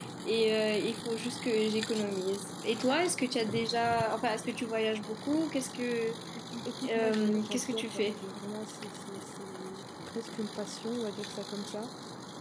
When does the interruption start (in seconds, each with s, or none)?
6.9 s